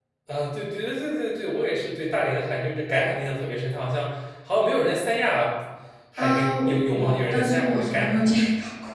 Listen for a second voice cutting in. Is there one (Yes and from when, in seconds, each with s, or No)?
Yes, from 6.2 s